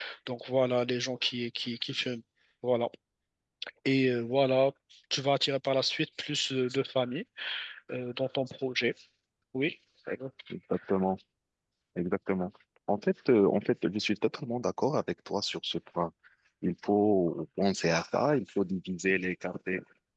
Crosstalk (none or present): none